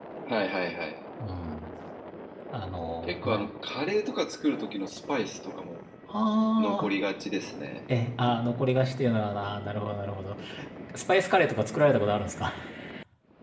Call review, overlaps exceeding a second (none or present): none